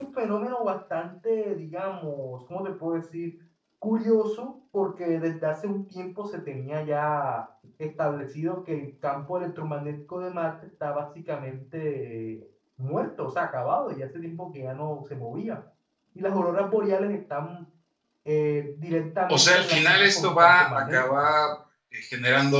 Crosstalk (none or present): present